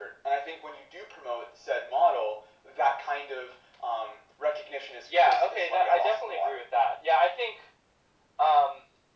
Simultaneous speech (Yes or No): Yes